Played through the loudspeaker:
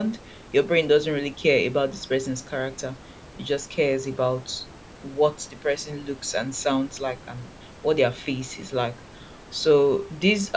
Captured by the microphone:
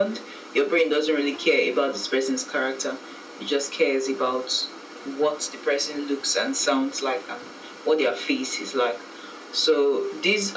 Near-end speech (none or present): none